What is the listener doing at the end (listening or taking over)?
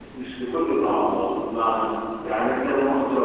listening